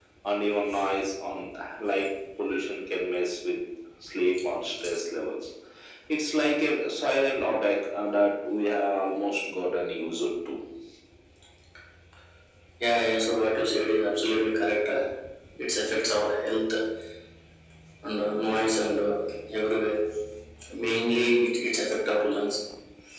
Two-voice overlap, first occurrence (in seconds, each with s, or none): none